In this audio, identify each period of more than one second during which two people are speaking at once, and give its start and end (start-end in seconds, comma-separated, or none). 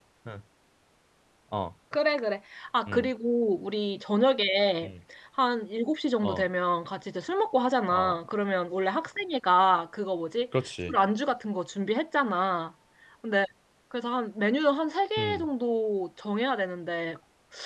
none